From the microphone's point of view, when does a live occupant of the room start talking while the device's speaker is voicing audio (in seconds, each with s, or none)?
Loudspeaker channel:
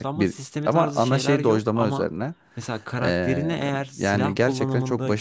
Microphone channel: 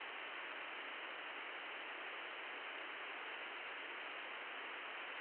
none